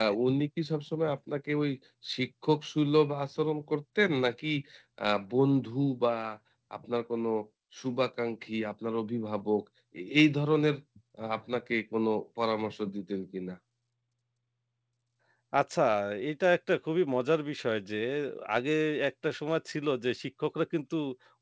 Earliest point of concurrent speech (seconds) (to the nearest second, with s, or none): none